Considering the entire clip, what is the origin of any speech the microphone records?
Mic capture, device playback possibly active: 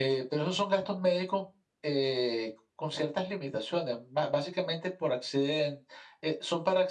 echo only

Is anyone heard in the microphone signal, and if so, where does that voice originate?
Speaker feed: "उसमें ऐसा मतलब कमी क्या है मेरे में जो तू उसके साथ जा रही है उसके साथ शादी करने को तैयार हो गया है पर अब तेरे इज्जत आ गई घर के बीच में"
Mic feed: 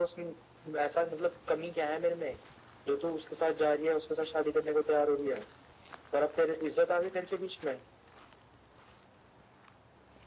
echo only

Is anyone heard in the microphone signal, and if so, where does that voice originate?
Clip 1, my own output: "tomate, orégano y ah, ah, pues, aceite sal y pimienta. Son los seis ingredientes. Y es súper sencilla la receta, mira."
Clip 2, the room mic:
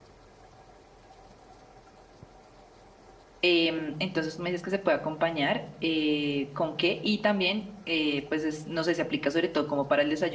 user only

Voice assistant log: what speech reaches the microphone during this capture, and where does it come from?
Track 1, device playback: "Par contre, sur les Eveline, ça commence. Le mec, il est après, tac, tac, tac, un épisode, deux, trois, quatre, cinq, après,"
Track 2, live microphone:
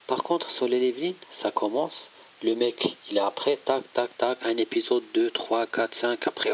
echo only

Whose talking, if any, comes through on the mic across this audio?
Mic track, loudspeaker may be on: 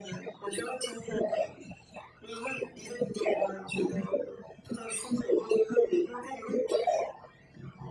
echo only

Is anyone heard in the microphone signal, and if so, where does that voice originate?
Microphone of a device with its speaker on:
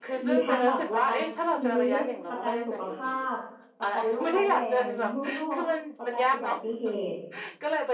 both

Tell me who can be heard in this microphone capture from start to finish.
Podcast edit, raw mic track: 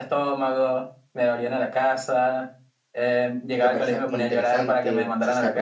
both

